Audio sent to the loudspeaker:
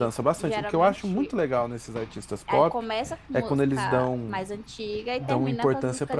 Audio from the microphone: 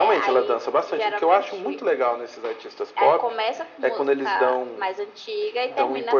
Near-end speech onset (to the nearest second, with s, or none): none